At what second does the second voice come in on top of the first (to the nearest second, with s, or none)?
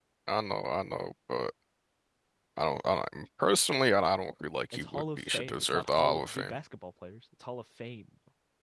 5 s